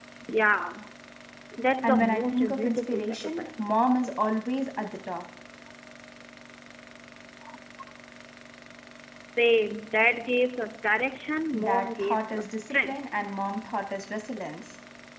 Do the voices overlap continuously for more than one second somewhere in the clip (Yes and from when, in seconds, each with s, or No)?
Yes, from 1.8 s